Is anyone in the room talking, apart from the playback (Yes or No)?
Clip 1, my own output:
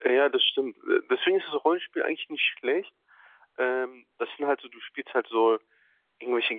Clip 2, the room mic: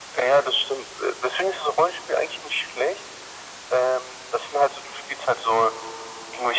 No